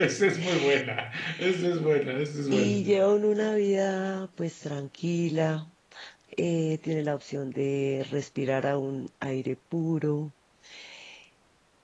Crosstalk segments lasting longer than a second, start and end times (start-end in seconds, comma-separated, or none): none